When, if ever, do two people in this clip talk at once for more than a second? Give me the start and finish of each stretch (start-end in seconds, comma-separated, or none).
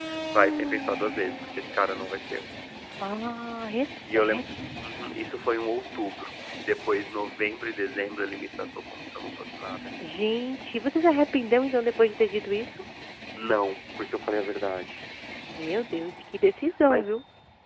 none